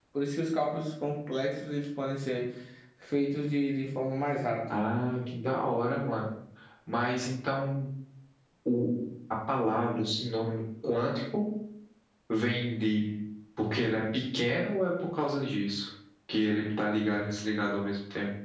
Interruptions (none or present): none